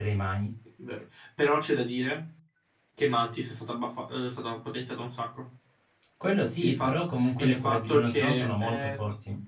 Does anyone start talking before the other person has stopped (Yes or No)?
Yes